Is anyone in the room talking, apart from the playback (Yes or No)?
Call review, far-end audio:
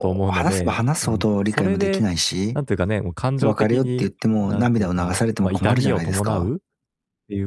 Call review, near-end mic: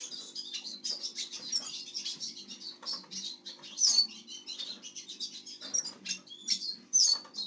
No